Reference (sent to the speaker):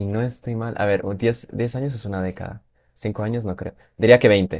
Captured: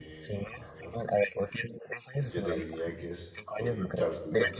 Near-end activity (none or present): present